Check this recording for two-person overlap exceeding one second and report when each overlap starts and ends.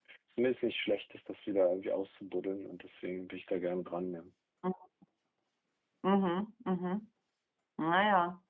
none

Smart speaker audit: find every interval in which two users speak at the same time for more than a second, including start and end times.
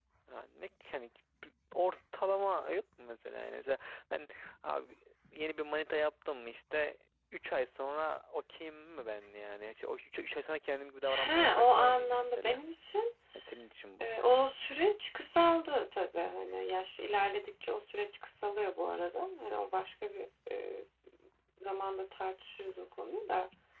11.0-12.6

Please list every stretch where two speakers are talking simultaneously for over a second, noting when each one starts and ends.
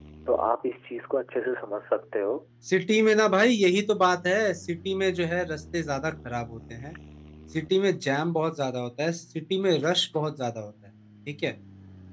none

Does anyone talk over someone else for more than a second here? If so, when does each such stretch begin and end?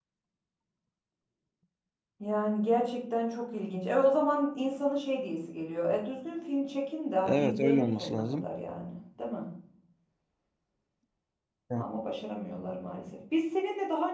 7.2-8.5

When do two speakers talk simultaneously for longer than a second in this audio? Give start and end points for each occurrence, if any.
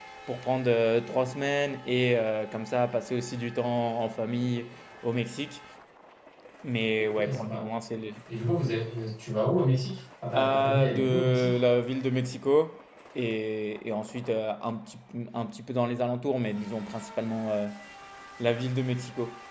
10.3-11.6

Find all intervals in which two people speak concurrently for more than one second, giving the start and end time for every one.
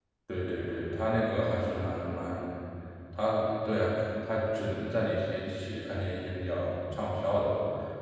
none

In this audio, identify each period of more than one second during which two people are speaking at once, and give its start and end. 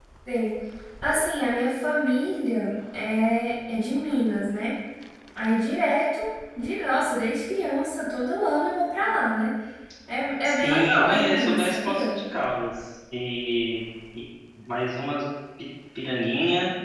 10.4-12.2

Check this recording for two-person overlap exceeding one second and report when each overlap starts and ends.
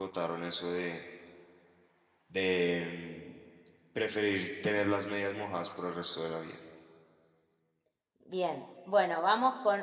none

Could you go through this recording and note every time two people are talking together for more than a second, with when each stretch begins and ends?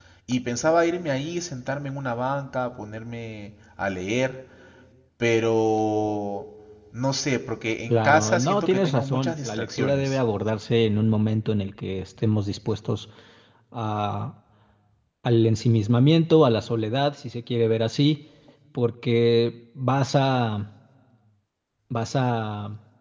7.9-10.2

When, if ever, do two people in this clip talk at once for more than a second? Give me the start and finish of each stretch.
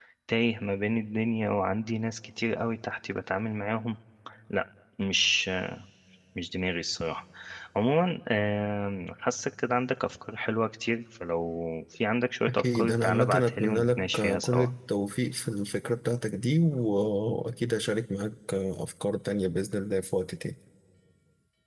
12.5-14.7

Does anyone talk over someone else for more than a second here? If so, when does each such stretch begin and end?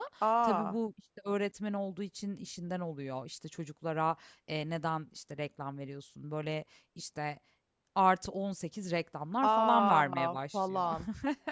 9.4-10.8

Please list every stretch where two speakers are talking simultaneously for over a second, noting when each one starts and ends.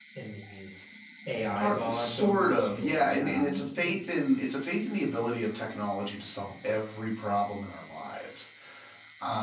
1.6-4.0

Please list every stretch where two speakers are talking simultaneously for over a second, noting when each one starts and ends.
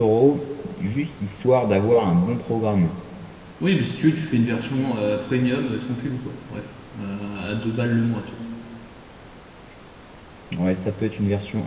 none

